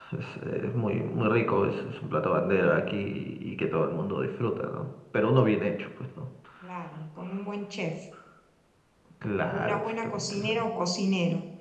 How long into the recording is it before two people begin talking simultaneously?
9.4 s

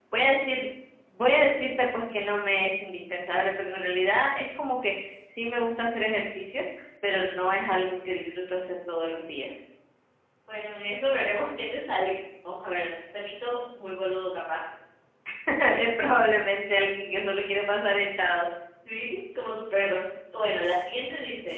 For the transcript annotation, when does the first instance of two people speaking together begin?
none

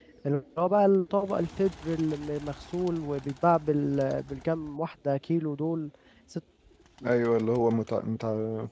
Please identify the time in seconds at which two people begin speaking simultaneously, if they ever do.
none

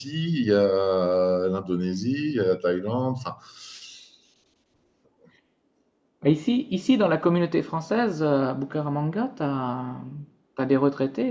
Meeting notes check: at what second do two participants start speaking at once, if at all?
none

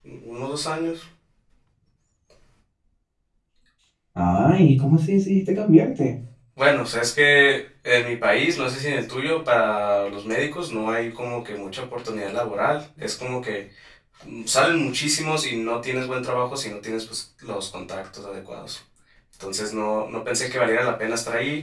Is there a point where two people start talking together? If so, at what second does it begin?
none

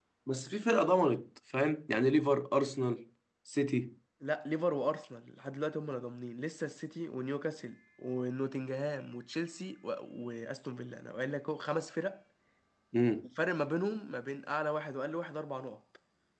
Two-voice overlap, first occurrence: none

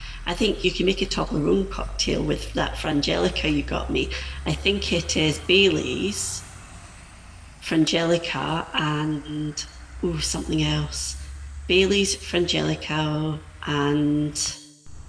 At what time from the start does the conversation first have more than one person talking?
none

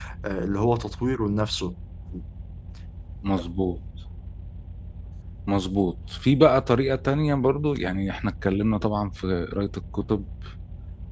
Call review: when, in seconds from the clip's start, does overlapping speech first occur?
none

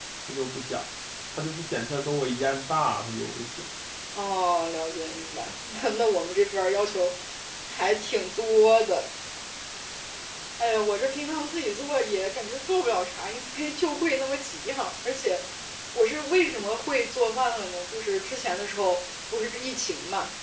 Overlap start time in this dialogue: none

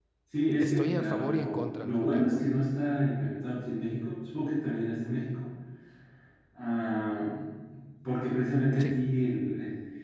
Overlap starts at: 0.6 s

